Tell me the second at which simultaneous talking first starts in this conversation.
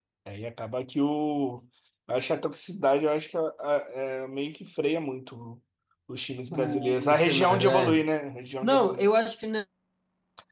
6.5 s

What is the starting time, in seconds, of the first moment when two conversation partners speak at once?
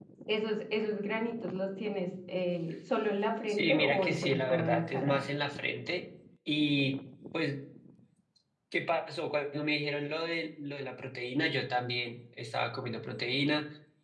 3.5 s

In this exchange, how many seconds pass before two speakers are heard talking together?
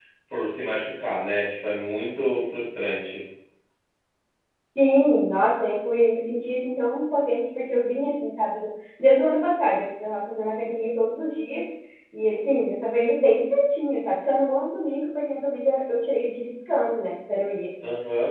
none

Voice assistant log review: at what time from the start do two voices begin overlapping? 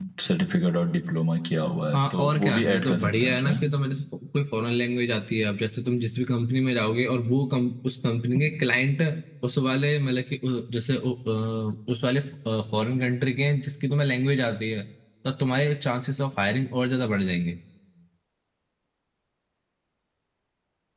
1.9 s

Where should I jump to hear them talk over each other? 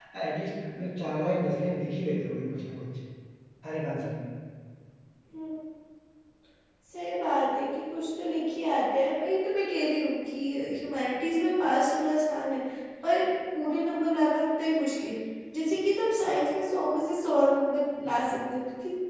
none

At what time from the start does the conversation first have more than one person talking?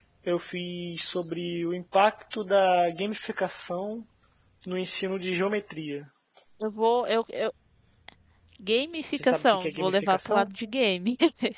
9.1 s

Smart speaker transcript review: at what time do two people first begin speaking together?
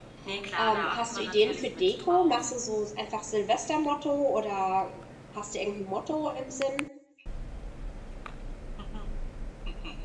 0.6 s

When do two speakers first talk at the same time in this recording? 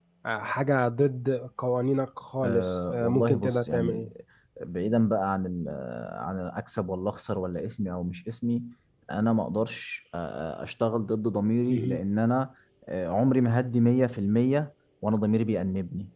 2.4 s

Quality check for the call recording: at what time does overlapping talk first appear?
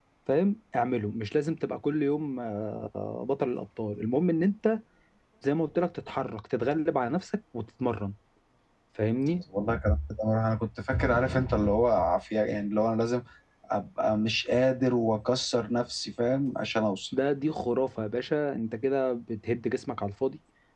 none

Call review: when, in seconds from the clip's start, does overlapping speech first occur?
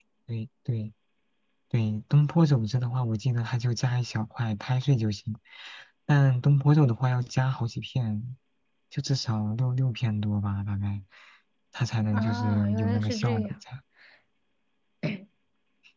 12.1 s

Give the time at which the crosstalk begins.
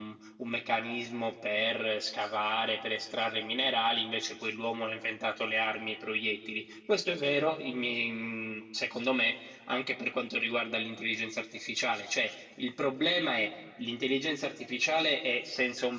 none

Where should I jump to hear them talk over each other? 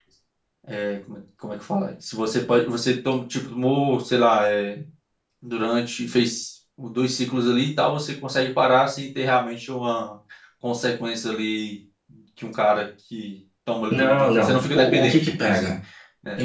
13.9 s

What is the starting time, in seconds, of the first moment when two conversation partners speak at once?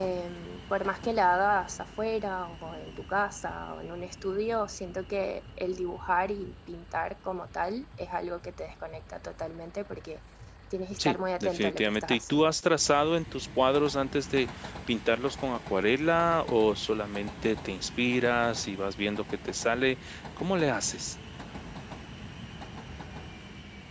11.0 s

